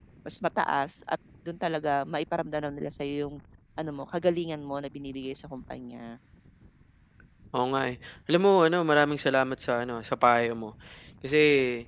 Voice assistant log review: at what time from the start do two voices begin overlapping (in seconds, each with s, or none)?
none